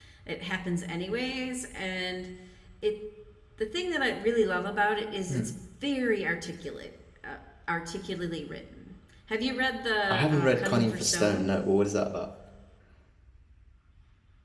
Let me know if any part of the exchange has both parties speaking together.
Yes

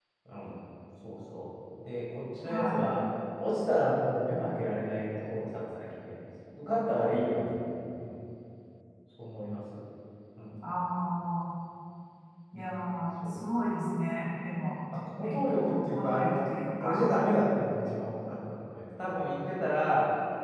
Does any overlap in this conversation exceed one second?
Yes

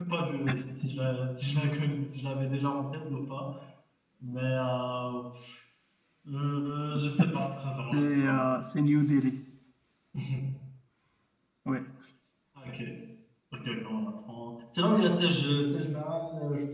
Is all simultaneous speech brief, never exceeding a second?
Yes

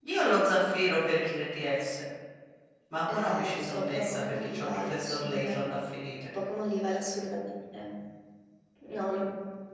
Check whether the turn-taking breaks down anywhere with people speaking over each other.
Yes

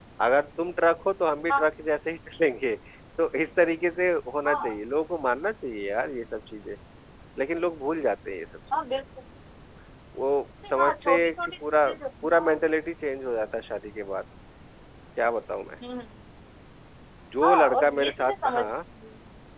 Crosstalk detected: Yes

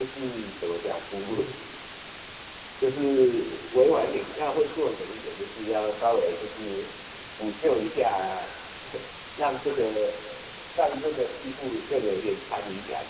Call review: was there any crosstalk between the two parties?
No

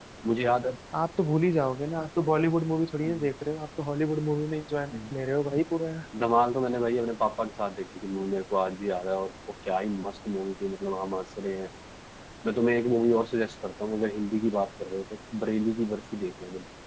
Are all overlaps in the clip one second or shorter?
Yes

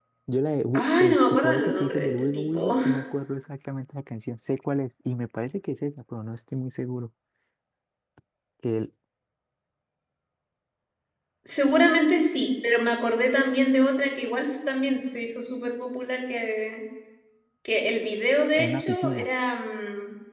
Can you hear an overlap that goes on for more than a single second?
Yes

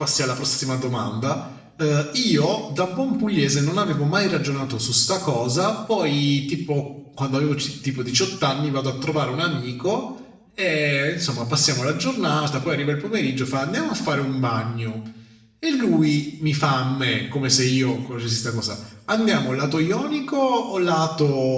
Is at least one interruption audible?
No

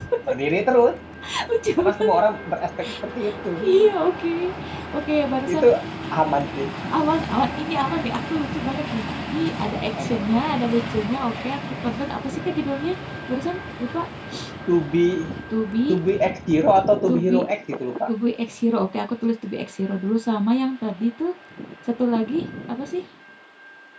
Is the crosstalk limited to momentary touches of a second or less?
Yes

